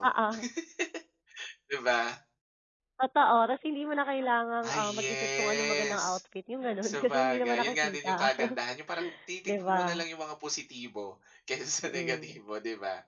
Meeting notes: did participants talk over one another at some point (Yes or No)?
Yes